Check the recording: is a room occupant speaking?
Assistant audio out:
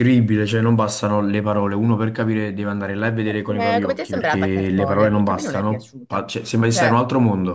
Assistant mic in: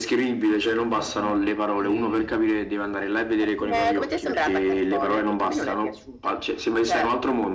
Yes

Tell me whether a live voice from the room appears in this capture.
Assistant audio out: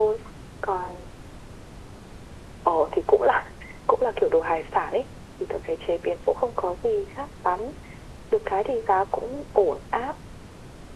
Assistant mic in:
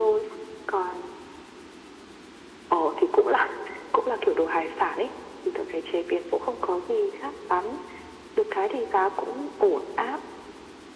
No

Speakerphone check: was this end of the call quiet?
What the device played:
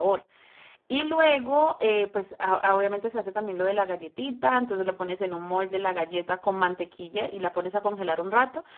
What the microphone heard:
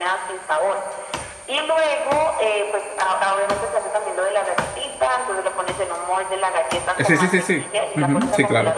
No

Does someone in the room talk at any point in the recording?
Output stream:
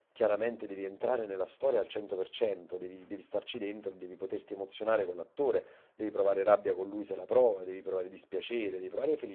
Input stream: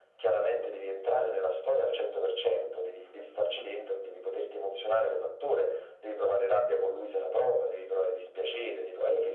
No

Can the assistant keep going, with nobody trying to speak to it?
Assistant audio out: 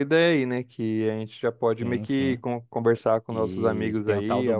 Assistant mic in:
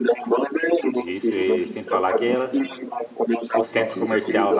No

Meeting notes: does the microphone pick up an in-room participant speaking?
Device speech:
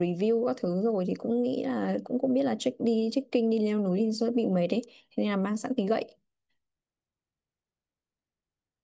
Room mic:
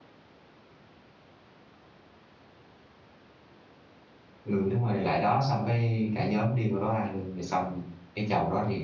Yes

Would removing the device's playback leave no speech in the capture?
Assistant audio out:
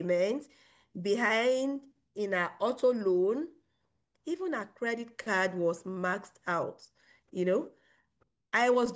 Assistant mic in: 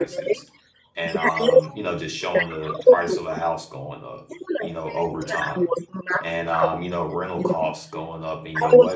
No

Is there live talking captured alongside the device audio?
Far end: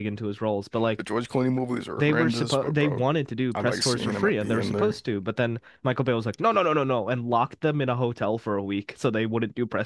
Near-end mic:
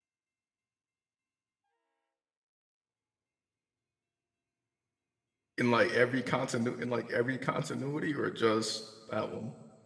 Yes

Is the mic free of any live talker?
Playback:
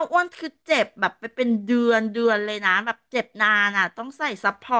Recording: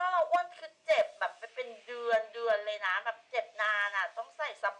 Yes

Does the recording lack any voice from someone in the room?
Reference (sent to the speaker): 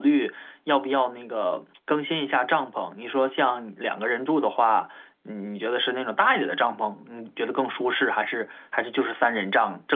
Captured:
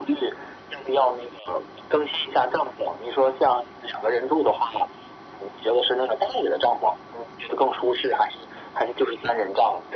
Yes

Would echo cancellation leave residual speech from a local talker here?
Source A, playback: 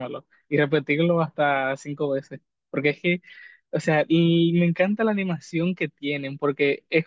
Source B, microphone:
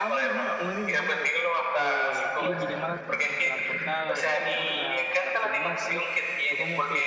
Yes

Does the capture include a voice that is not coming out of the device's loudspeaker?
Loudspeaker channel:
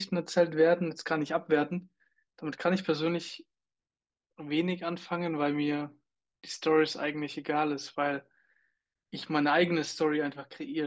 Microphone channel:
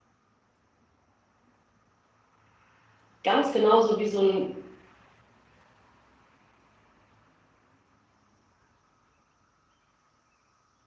Yes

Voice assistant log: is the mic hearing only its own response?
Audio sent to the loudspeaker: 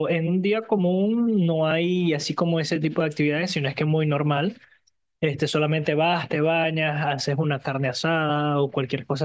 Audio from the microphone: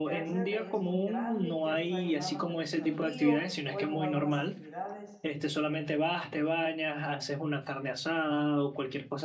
No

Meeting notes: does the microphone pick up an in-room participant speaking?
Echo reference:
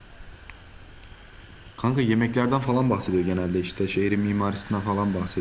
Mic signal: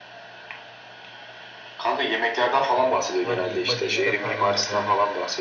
Yes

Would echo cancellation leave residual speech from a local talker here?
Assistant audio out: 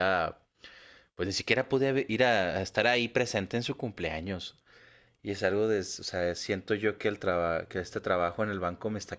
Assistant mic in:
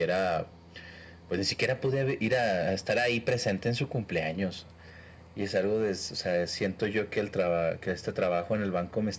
No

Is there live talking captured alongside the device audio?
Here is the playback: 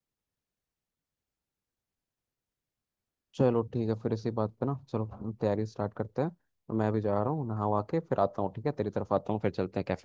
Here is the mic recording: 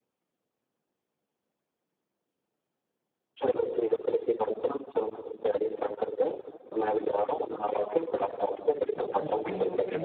Yes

